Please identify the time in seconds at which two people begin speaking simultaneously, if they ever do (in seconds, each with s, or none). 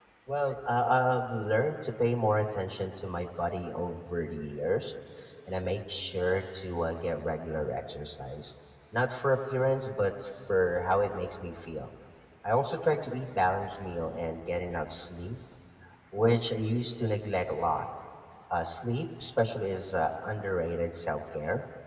none